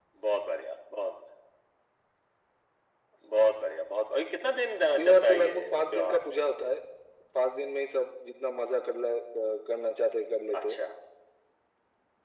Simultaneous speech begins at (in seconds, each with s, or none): 5.0 s